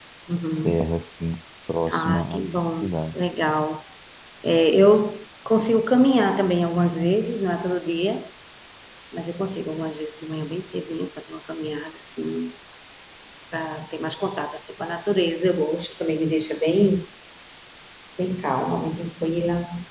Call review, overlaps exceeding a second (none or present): present